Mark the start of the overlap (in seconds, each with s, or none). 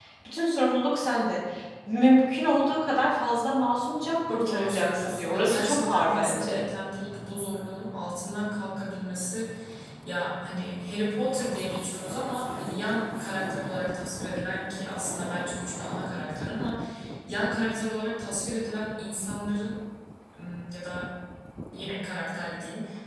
4.3 s